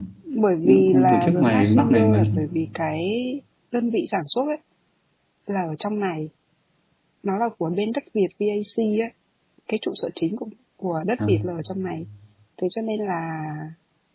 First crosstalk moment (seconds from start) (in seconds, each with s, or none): 0.6 s